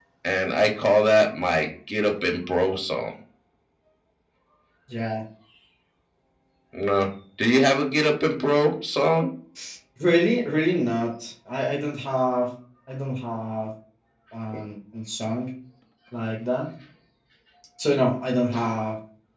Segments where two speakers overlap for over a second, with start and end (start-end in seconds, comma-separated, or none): none